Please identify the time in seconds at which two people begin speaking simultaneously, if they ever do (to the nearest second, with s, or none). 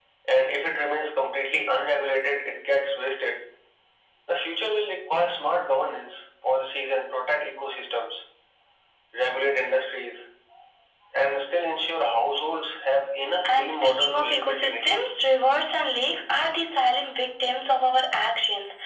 13 s